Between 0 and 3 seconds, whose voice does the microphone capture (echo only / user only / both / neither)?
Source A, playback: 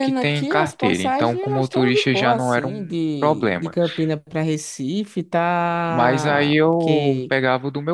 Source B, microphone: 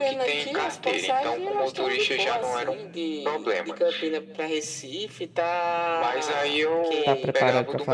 echo only